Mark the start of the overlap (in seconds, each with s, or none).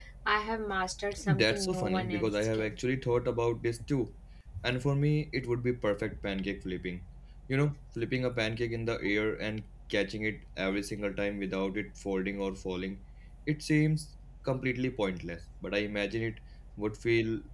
1.3 s